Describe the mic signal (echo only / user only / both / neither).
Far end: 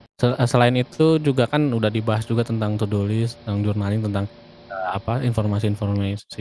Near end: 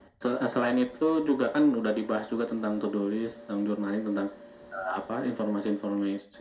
echo only